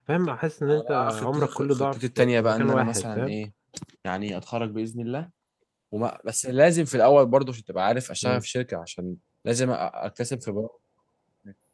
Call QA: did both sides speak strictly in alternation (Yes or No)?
No